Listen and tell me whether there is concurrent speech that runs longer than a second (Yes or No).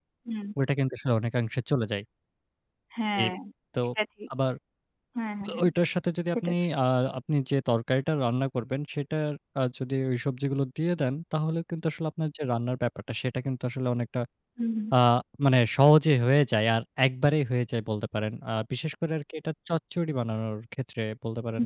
No